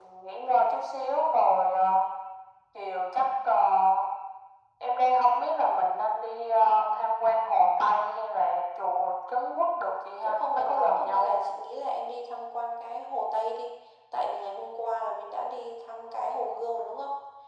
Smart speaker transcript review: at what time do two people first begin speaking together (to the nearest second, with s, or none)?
10 s